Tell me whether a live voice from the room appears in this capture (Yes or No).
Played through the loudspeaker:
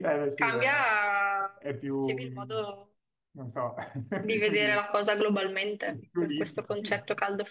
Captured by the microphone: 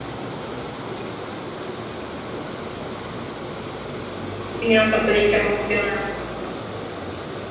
Yes